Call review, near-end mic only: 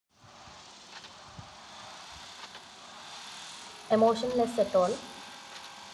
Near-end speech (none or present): present